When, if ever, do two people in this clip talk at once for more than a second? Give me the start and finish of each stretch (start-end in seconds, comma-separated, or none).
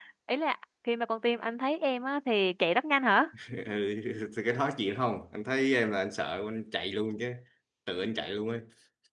none